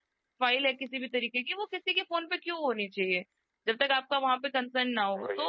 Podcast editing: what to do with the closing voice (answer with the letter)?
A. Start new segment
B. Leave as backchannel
B